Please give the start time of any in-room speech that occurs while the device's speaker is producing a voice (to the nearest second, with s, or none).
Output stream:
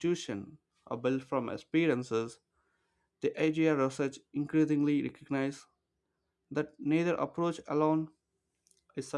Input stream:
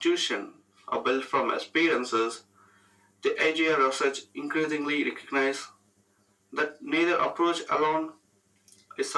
none